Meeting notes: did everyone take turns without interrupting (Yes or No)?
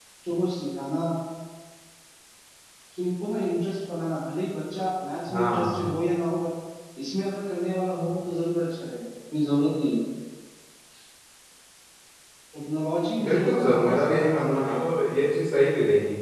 No